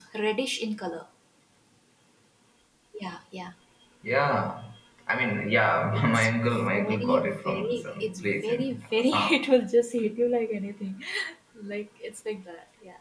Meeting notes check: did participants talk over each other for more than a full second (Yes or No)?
Yes